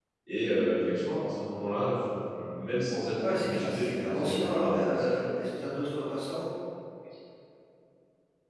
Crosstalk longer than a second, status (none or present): present